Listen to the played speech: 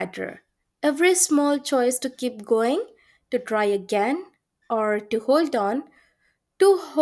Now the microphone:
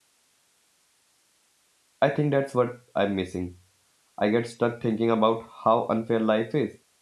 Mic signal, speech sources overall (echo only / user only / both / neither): user only